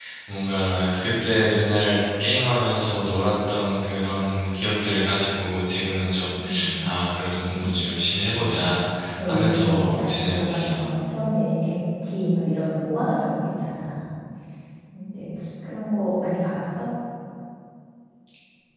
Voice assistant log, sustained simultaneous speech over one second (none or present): present